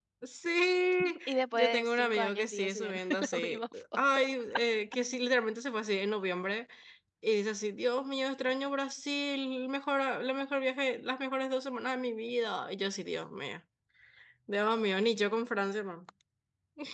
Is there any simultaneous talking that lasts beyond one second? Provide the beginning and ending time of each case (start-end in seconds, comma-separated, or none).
1.3-4.2